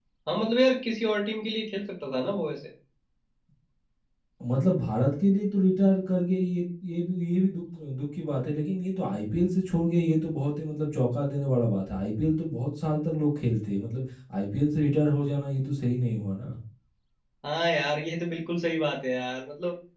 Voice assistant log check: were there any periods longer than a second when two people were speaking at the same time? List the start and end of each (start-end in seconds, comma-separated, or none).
none